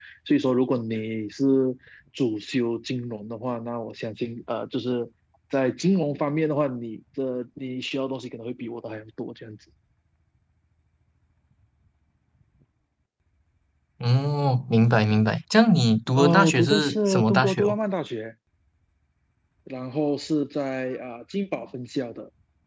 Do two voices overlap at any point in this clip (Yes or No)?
Yes